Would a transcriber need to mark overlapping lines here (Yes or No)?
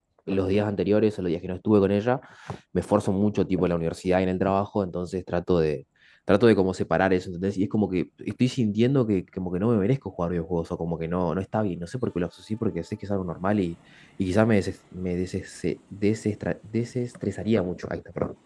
No